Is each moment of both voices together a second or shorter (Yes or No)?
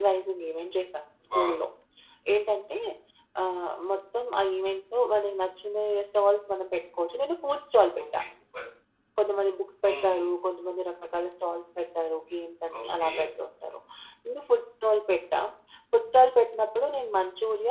Yes